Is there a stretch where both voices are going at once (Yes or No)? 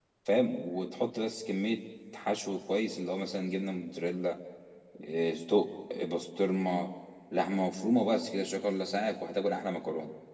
No